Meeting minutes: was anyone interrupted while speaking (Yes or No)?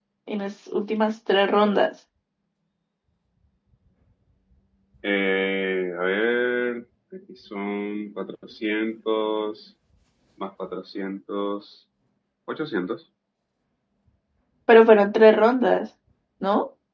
No